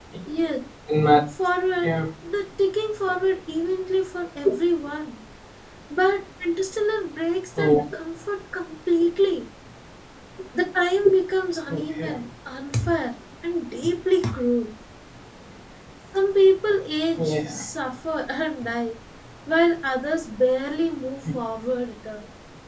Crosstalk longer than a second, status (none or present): none